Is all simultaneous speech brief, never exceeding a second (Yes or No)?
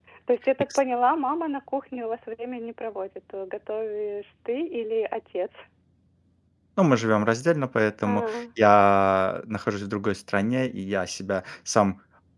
Yes